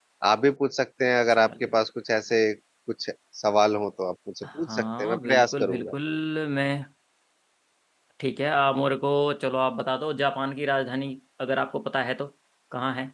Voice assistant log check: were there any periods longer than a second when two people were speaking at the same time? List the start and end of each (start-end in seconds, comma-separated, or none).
4.4-5.9